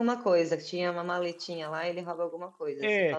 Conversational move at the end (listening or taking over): taking over